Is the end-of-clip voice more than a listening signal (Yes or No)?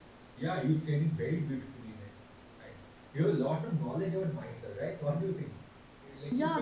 Yes